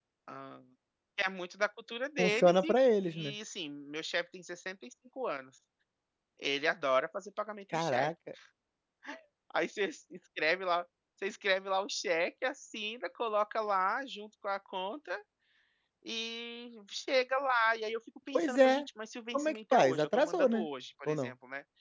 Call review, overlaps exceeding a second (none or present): present